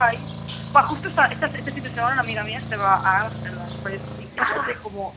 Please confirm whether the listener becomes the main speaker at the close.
No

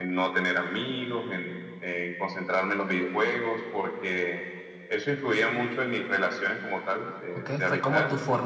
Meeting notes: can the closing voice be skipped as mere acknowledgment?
No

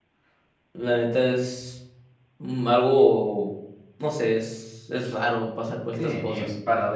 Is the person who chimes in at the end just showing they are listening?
No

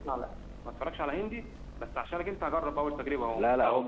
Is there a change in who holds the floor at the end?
Yes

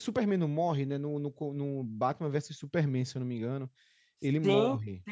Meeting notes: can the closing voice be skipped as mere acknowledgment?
No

